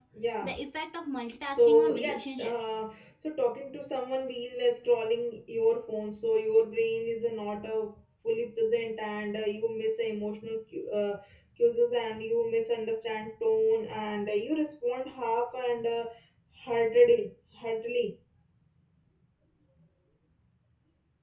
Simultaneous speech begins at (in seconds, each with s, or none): 1.5 s